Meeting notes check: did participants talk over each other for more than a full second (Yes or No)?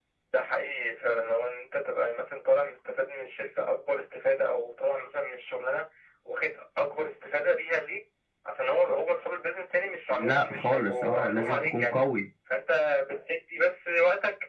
Yes